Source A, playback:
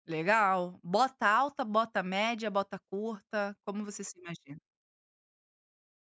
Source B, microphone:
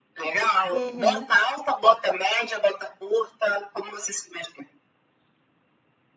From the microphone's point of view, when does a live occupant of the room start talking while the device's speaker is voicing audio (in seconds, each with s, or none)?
0.7 s